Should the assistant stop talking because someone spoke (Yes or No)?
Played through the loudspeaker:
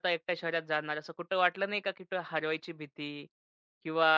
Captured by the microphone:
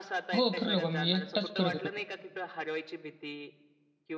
Yes